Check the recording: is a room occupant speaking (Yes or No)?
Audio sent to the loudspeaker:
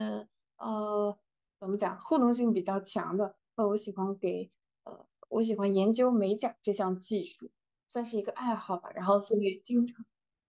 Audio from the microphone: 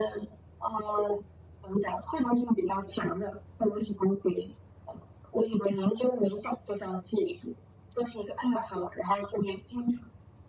No